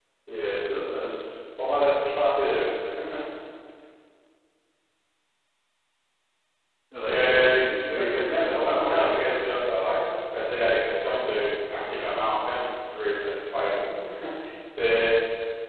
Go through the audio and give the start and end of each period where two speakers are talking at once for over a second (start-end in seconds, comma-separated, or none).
7.0-9.2